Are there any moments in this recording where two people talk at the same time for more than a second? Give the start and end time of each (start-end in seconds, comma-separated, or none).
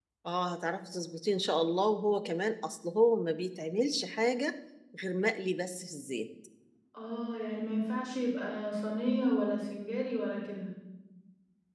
none